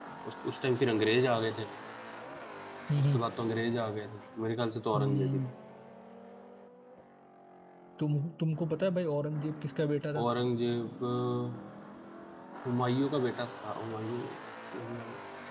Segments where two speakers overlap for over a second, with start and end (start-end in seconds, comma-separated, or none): none